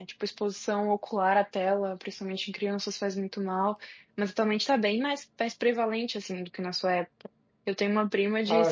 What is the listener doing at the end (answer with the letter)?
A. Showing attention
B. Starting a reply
A